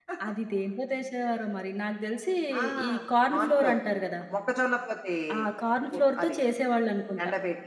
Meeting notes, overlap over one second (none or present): none